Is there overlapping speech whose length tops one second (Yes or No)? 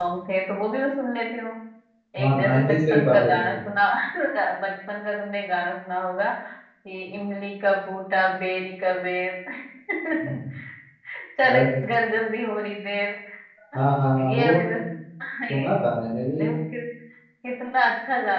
Yes